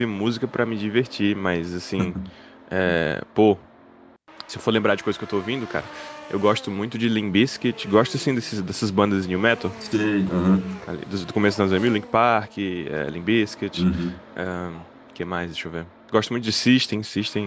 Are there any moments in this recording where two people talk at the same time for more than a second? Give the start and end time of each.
none

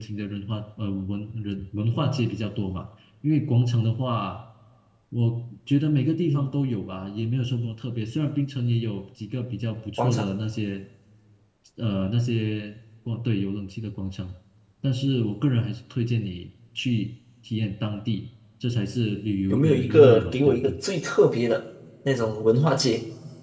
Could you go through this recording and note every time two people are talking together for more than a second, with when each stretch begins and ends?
19.5-20.8

